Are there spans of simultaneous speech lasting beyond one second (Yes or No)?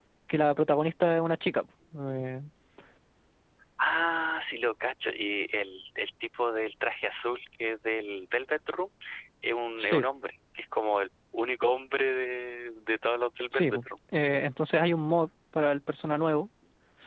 No